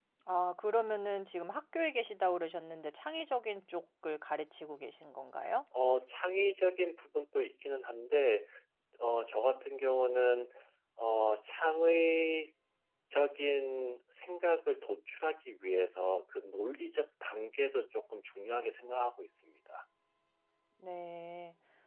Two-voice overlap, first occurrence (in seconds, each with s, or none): none